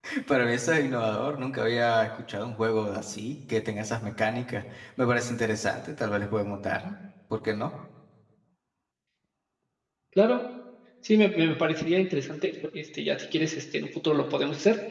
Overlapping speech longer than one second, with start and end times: none

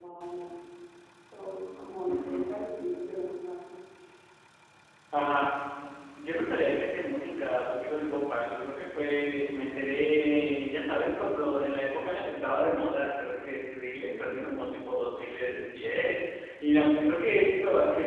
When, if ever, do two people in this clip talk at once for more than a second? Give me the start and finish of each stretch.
none

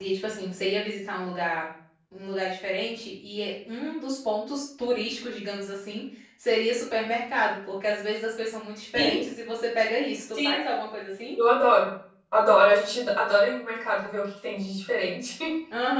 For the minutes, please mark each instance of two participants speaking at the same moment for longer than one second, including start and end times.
none

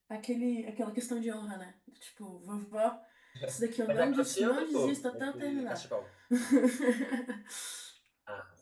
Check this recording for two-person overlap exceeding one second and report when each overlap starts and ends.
3.9-5.8

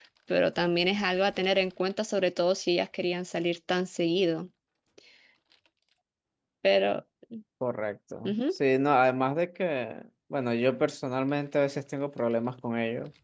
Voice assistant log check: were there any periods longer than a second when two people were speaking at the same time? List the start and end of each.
none

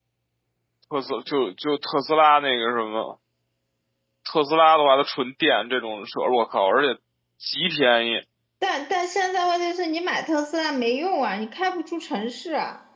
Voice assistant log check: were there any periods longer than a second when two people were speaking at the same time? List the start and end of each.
none

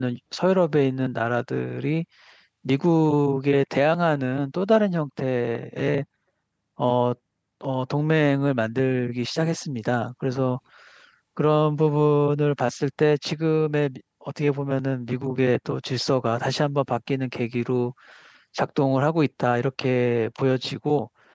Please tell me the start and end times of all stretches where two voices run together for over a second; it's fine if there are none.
none

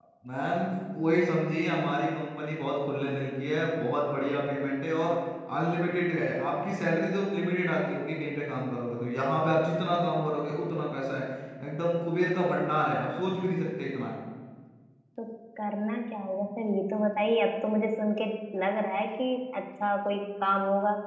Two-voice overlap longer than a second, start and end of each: none

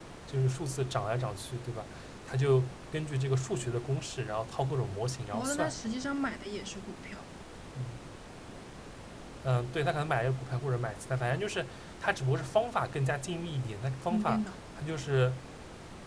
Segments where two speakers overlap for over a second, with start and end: none

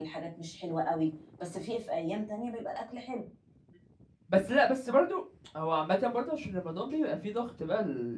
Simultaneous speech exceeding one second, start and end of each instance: none

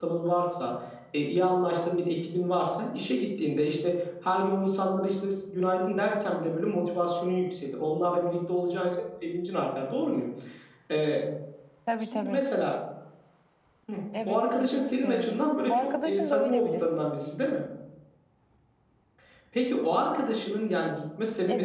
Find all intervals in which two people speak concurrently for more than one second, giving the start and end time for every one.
14.2-17.1

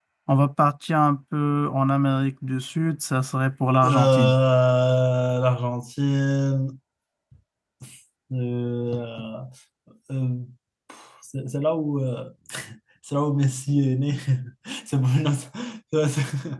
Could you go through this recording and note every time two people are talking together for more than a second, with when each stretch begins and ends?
none

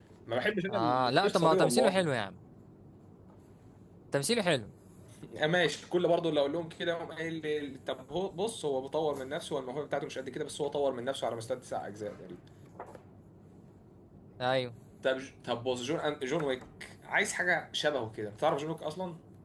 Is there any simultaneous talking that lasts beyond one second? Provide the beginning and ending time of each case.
0.7-2.1

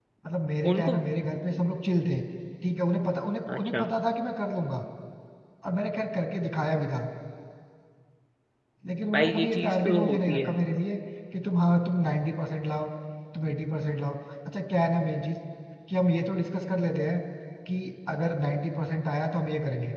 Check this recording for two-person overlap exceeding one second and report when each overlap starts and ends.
9.1-10.5

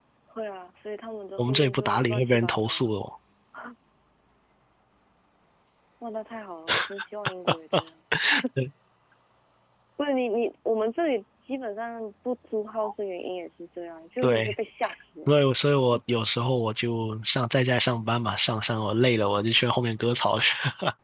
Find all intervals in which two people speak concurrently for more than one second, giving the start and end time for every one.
1.4-2.8

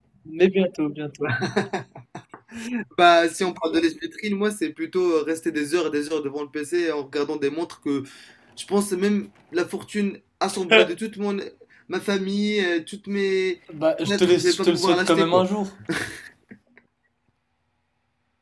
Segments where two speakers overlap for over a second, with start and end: 14.1-15.4

